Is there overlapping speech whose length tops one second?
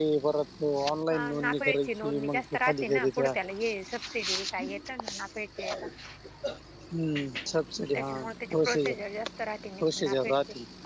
Yes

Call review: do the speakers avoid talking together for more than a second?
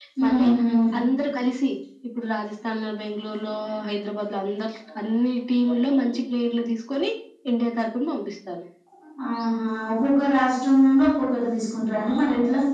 Yes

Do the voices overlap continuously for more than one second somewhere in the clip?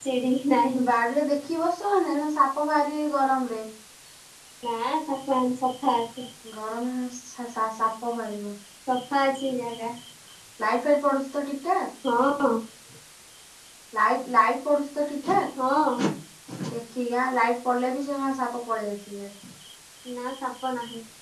No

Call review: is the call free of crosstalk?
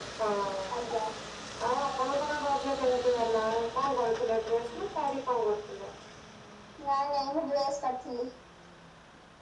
Yes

